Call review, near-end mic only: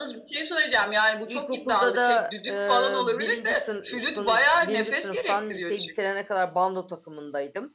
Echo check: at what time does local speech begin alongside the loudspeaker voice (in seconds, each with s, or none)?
1.2 s